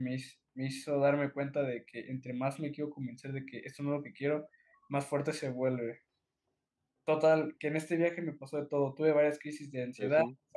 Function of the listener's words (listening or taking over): listening